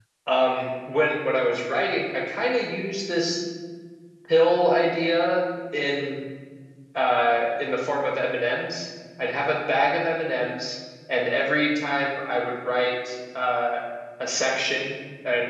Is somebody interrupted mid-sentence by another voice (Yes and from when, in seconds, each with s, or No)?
No